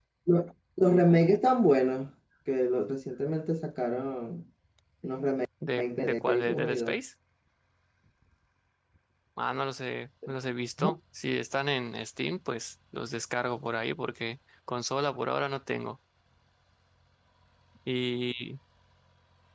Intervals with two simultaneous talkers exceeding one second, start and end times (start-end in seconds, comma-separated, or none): 5.8-7.0